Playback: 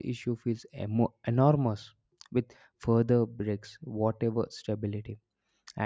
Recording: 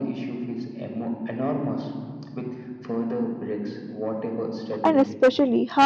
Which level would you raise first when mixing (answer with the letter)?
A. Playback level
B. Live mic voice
A